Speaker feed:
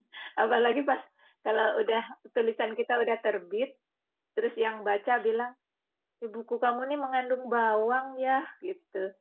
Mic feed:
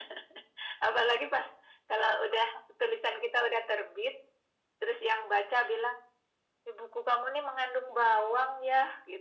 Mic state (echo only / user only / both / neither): echo only